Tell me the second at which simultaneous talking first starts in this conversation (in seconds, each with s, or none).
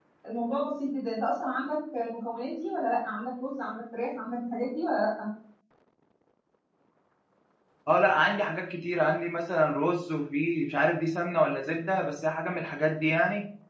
none